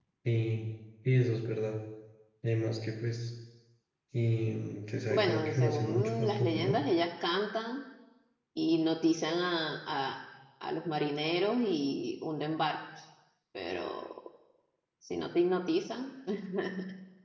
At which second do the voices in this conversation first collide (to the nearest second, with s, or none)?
5 s